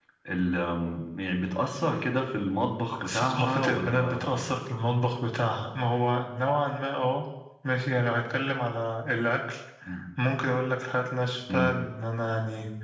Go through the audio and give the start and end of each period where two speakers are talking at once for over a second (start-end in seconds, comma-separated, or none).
3.1-4.4